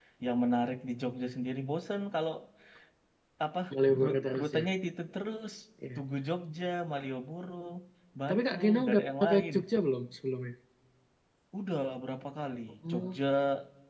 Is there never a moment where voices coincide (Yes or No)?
No